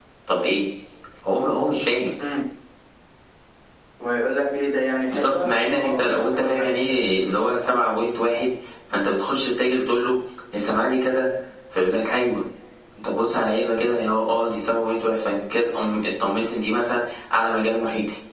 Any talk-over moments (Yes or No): Yes